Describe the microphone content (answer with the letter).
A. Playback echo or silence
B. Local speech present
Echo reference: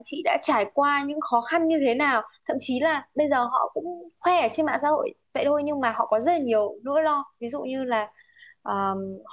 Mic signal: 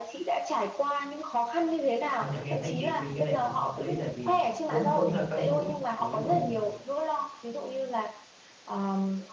B